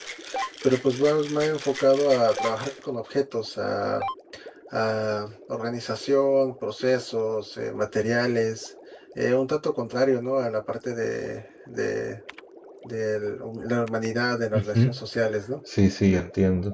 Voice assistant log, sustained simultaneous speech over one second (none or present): none